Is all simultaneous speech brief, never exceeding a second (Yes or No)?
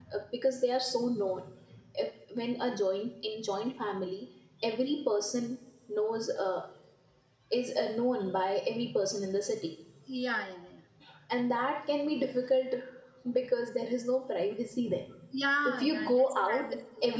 No